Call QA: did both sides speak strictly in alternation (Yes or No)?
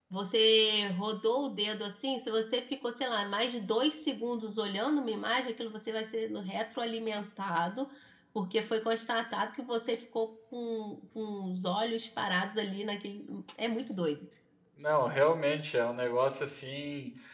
Yes